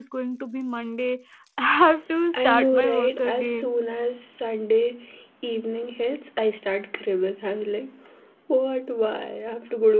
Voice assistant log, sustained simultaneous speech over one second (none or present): present